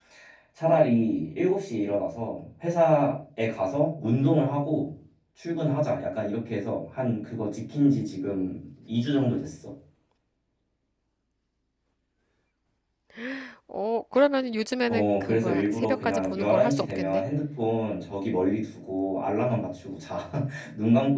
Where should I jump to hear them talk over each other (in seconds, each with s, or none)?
14.9 s